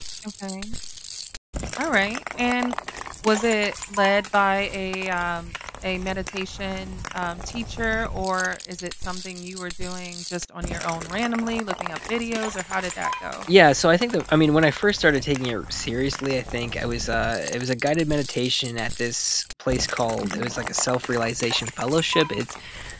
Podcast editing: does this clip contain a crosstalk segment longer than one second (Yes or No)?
No